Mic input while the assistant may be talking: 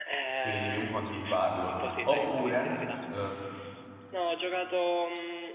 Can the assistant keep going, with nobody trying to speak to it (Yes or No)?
No